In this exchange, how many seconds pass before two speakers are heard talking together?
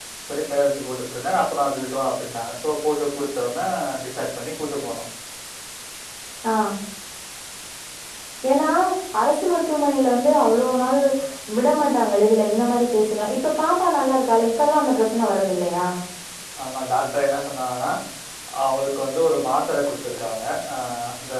none

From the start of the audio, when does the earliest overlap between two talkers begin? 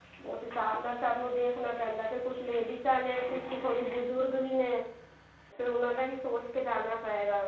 none

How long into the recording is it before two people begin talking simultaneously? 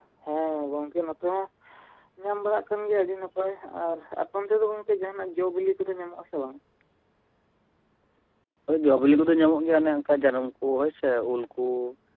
none

